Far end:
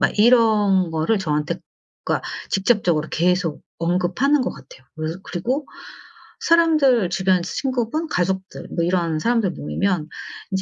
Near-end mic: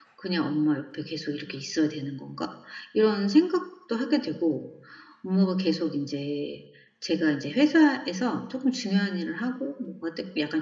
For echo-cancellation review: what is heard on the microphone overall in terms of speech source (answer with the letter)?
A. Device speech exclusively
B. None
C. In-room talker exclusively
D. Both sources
C